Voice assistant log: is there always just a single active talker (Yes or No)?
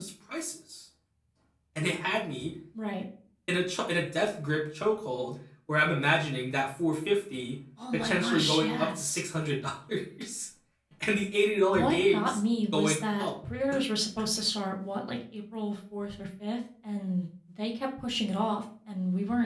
No